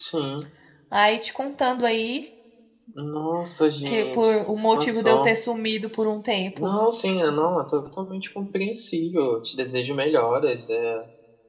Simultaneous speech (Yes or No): Yes